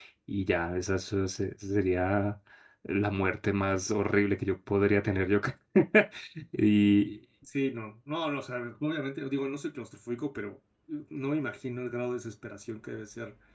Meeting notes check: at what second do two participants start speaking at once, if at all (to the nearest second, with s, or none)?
none